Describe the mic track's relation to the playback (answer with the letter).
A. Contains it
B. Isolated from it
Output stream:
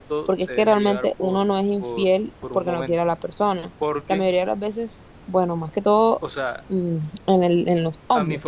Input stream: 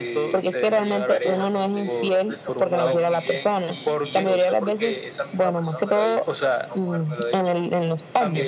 A